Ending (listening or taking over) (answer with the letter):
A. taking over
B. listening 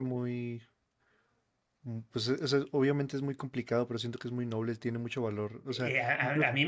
A